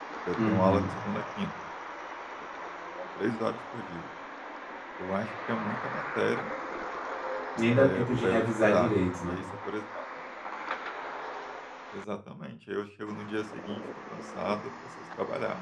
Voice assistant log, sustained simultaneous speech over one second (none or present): present